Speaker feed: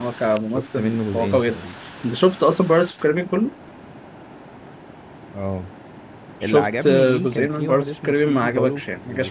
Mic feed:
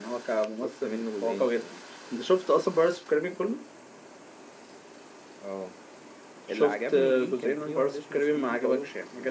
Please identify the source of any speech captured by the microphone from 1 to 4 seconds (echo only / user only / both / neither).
echo only